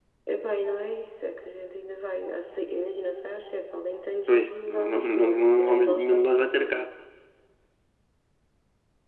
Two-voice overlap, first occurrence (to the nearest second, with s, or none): 4 s